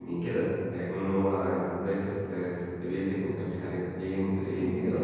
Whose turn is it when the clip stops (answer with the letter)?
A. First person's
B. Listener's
B